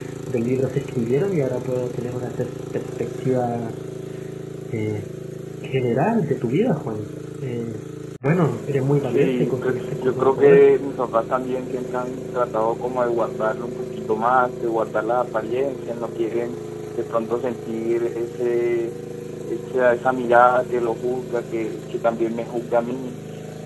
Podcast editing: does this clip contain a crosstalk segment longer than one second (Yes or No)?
Yes